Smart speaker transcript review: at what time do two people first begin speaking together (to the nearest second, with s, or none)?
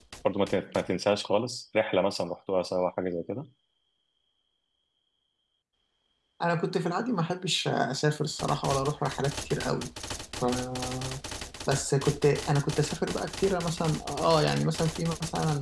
none